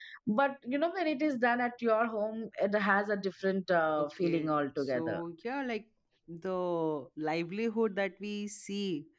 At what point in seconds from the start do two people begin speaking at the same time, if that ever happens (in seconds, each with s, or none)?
4.0 s